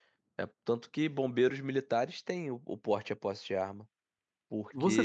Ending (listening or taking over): taking over